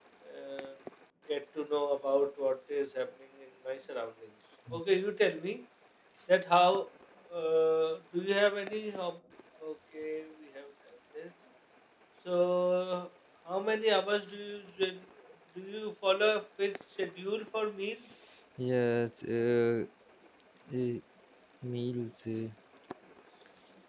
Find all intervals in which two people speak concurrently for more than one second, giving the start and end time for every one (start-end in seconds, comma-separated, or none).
none